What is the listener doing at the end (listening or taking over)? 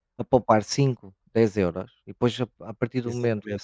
listening